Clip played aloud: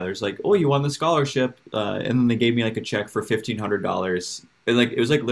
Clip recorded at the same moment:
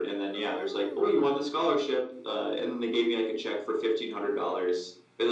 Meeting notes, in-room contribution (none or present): present